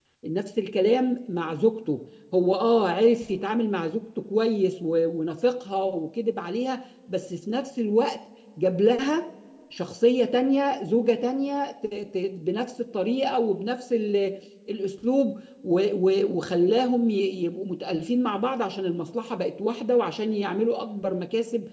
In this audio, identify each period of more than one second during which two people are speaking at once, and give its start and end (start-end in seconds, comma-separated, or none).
none